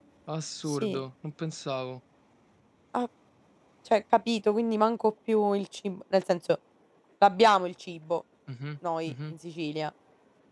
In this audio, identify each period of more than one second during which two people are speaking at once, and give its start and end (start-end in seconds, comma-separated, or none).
none